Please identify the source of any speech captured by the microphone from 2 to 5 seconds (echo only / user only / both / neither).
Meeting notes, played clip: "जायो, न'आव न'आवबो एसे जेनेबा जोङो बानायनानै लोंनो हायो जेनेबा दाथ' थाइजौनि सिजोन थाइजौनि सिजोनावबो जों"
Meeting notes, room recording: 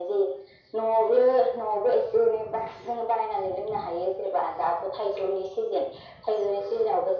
echo only